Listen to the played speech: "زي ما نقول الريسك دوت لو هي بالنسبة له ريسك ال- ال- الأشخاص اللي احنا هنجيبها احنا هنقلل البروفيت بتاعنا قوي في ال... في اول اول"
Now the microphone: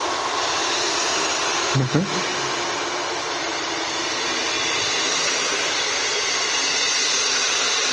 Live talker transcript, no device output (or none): مهم.